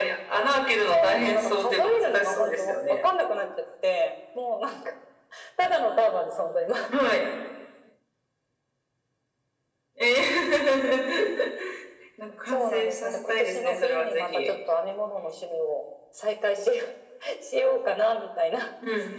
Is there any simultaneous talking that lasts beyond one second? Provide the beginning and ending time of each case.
0.9-3.0, 12.5-14.6

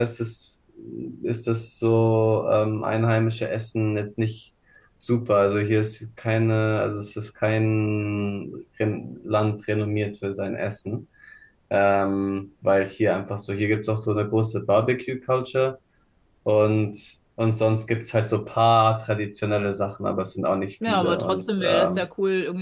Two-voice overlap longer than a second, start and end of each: 20.8-22.0

